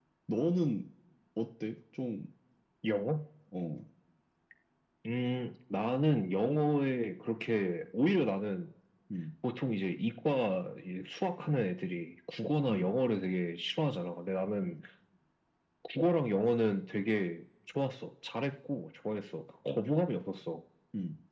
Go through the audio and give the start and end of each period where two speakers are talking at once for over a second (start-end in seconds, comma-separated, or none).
none